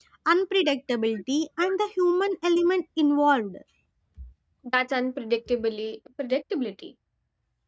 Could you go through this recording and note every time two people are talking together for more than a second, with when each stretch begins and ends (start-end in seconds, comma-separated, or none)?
none